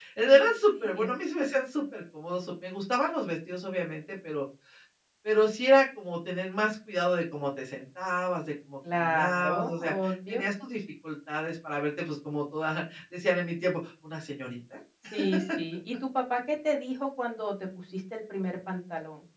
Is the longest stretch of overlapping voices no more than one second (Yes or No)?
No